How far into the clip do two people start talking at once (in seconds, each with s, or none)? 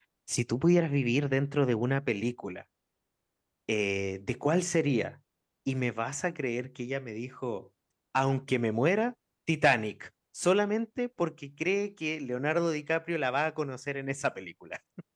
none